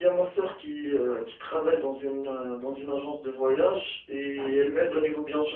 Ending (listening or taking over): listening